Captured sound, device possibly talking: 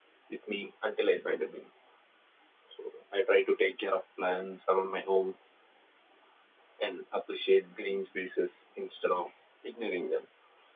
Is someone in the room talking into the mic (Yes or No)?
No